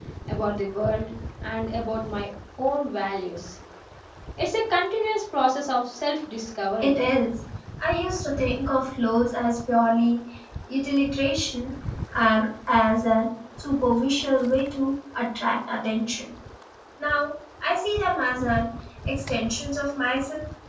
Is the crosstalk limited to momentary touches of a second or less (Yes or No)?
Yes